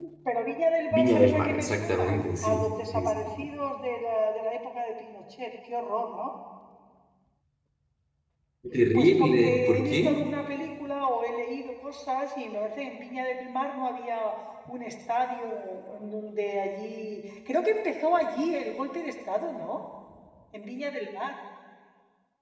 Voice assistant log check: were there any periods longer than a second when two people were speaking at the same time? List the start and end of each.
0.9-3.3, 8.9-10.2

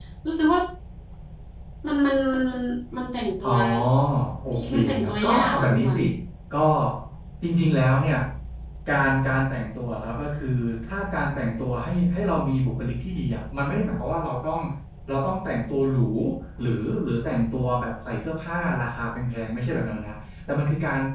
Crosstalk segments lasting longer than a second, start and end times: 4.7-6.0

